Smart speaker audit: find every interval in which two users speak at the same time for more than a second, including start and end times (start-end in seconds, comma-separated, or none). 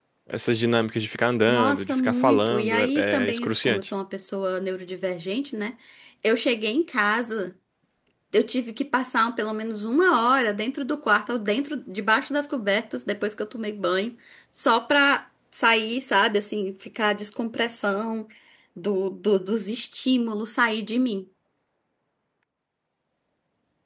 1.5-3.9